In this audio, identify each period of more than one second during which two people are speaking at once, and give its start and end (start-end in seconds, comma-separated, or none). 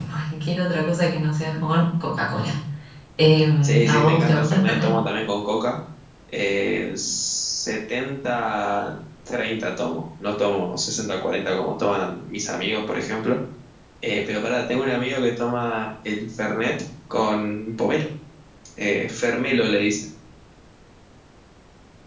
3.6-4.9